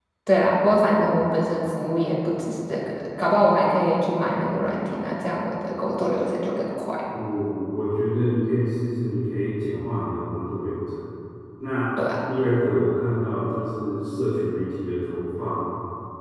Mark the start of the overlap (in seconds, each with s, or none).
none